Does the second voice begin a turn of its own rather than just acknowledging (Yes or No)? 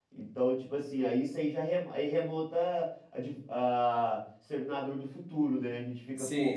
No